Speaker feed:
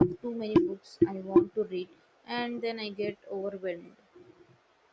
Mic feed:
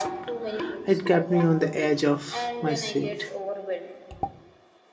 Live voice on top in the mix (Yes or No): Yes